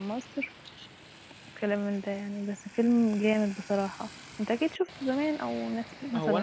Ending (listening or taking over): taking over